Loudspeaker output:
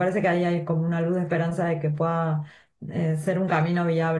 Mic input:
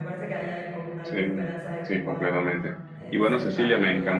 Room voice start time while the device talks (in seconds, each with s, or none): 1.0 s